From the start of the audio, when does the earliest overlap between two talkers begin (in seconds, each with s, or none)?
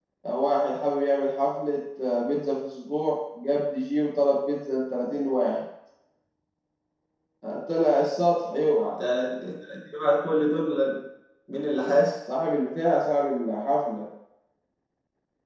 none